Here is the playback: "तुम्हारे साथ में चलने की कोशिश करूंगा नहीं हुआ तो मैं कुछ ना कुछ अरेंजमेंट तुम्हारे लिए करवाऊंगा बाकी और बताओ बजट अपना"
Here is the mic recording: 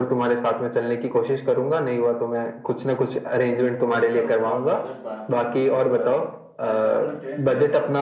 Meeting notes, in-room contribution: present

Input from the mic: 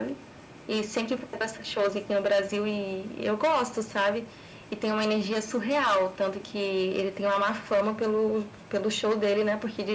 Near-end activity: none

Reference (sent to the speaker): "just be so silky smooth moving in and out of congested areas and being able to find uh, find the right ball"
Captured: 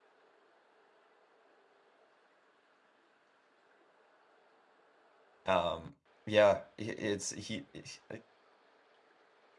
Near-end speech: present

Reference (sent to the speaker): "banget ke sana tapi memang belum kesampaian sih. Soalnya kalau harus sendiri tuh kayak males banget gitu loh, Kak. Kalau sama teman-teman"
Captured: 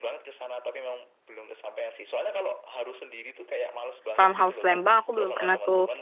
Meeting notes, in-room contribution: present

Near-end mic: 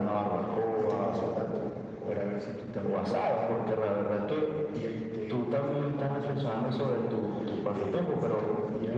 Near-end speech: none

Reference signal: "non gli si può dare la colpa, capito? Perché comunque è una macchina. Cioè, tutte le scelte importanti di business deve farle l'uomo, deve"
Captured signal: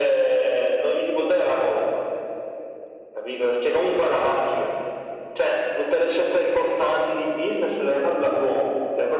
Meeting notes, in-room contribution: none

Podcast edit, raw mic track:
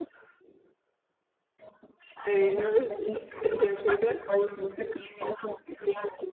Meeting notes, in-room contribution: present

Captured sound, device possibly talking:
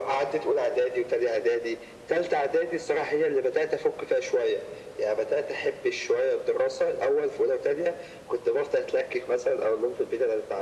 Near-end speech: none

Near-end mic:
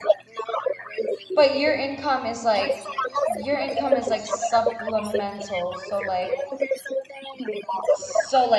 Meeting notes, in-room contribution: present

